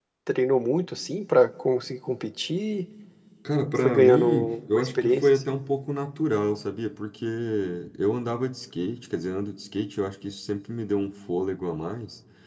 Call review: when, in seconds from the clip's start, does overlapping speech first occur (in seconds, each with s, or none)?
3.8 s